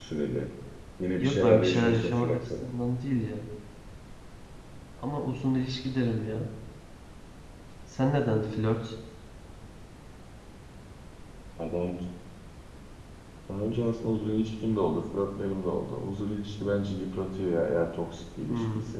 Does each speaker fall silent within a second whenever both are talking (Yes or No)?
No